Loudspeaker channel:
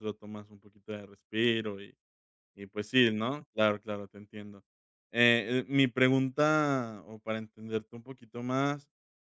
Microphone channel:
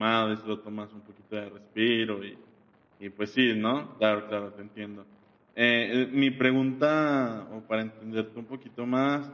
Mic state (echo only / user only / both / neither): echo only